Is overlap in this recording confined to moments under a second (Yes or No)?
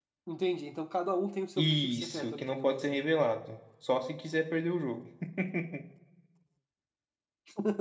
No